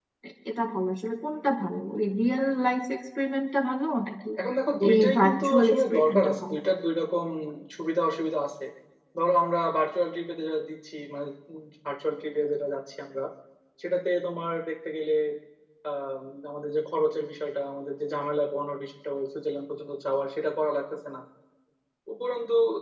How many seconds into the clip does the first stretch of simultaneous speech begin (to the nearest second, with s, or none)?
5 s